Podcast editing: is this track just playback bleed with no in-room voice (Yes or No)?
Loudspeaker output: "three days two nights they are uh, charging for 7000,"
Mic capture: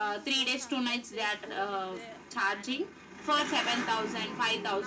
No